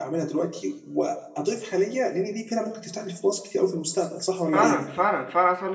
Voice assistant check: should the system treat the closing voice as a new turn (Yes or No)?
Yes